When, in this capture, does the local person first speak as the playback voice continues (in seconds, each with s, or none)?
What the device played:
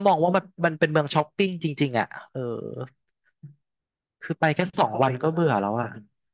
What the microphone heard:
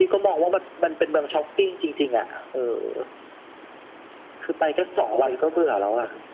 none